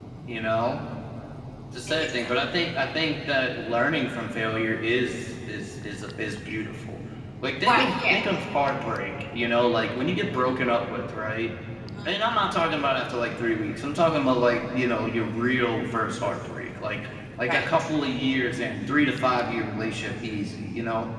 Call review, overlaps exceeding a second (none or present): none